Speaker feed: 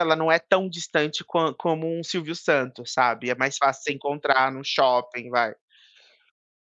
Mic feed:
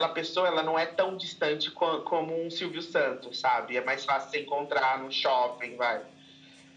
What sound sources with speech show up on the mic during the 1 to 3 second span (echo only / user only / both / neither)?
echo only